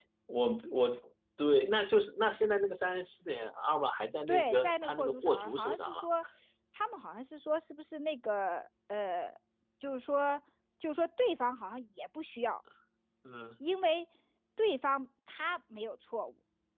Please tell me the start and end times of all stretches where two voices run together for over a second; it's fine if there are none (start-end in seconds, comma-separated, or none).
4.3-6.1